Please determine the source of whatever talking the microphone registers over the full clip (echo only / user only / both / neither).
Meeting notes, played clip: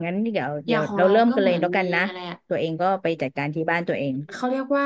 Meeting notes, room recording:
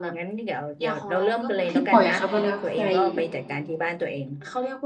both